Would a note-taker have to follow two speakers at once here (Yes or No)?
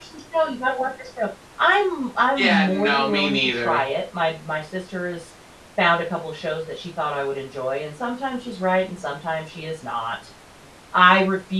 Yes